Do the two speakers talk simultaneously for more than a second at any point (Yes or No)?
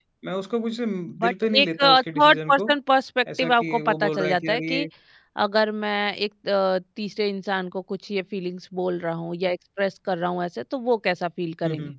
Yes